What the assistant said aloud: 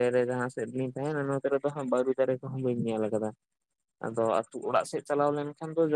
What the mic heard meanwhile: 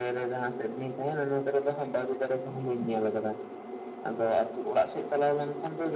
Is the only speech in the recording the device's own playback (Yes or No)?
Yes